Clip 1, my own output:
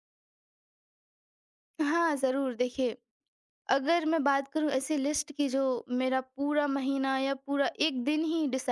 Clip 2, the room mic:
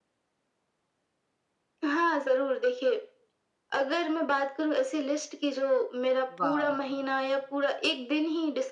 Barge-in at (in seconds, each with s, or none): 6.4 s